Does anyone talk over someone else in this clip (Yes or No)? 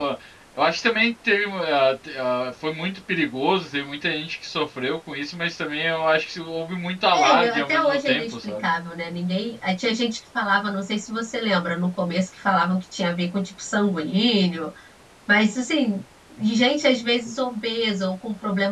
Yes